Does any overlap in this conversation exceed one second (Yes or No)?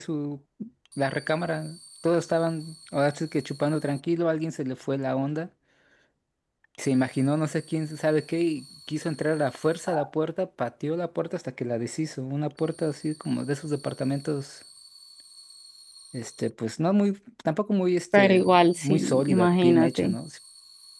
Yes